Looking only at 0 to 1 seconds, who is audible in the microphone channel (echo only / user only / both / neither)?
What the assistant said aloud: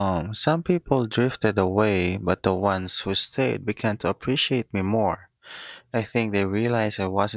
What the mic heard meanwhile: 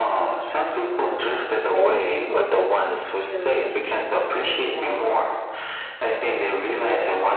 echo only